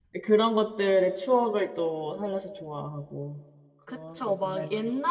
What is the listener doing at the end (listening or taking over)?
taking over